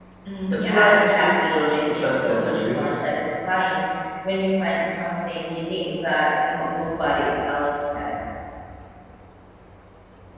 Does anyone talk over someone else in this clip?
Yes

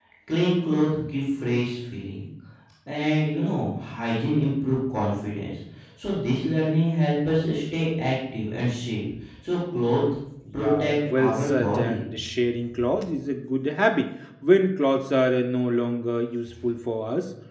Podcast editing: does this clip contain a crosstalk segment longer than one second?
Yes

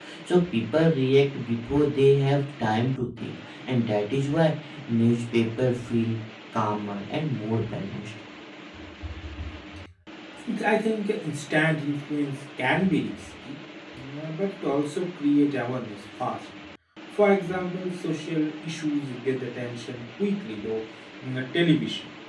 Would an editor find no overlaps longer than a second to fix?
Yes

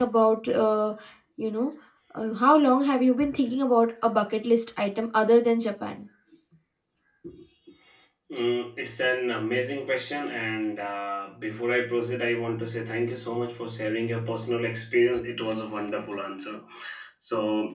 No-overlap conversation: Yes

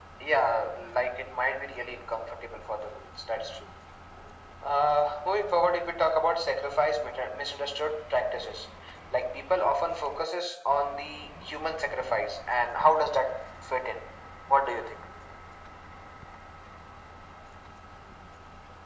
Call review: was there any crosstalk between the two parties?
No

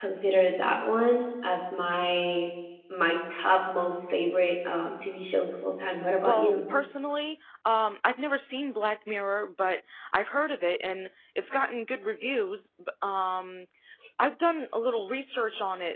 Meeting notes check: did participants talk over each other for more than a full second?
No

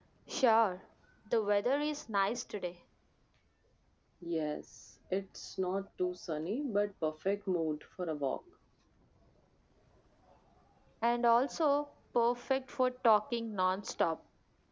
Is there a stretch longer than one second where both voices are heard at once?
No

